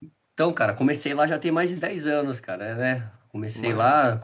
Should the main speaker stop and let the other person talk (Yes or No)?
No